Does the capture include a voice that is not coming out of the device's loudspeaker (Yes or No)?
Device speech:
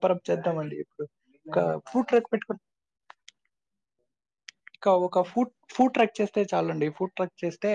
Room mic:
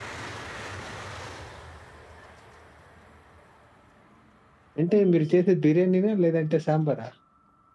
Yes